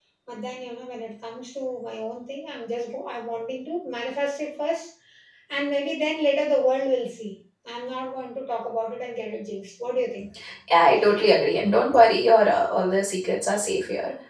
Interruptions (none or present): none